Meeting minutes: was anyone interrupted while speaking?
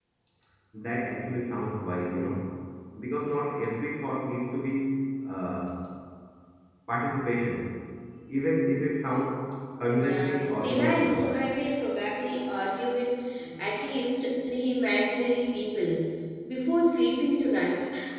Yes, from 10.0 s

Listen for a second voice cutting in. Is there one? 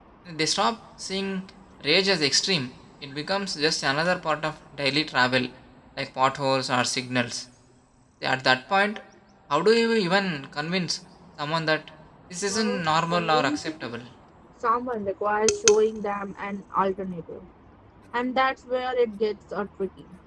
Yes, from 12.5 s

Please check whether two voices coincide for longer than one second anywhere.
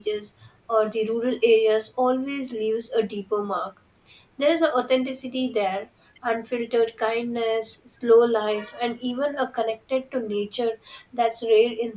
No

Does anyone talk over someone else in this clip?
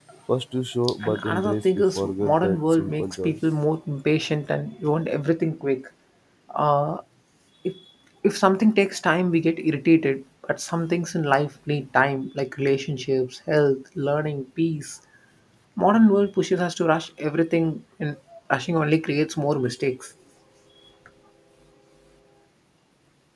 Yes, from 1.0 s

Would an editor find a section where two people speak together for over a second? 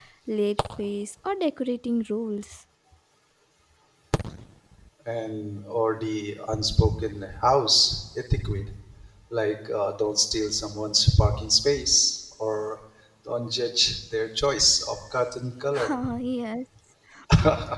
No

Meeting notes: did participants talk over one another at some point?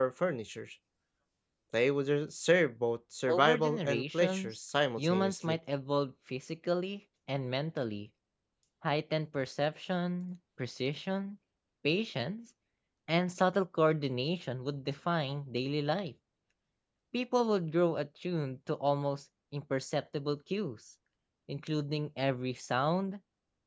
Yes, from 3.3 s

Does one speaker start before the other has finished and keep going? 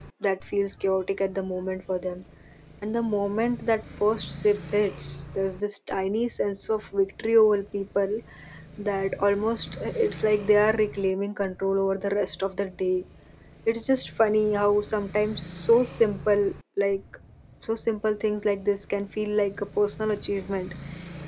No

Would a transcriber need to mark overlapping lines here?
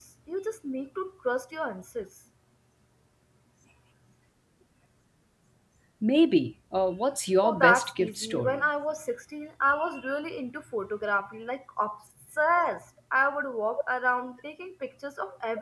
Yes, from 7.4 s

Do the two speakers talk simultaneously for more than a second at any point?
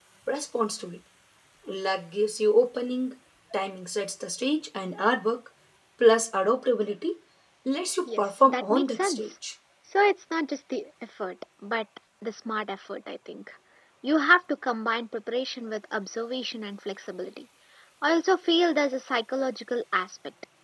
Yes, from 8.1 s

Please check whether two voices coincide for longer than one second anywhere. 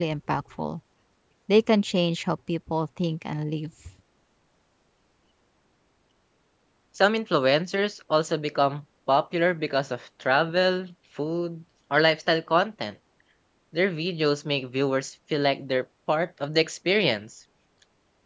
No

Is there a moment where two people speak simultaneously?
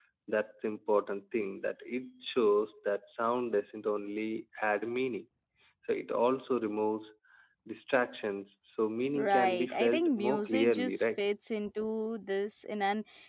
Yes, from 9.2 s

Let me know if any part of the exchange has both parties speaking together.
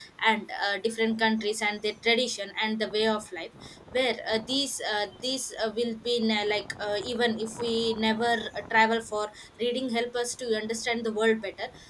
No

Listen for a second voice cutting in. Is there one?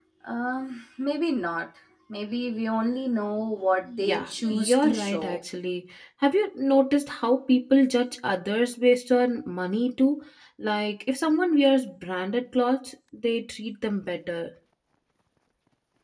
Yes, from 4.0 s

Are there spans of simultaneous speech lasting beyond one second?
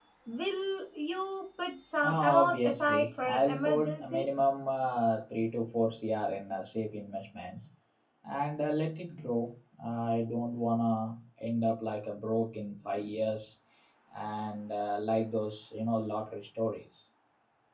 Yes, from 2.0 s

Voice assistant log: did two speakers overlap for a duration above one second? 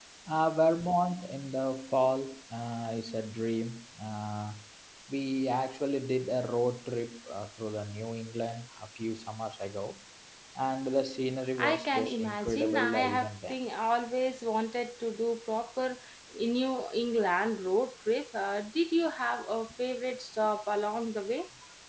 Yes, from 11.6 s

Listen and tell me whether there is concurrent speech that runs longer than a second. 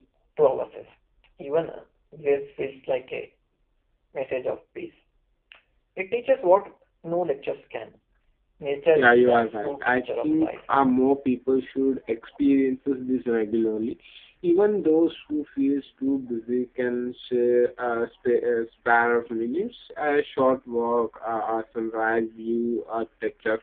Yes, from 8.9 s

